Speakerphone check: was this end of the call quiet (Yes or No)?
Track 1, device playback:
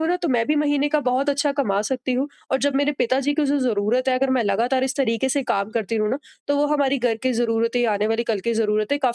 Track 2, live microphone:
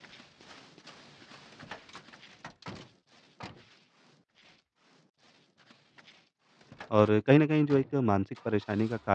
No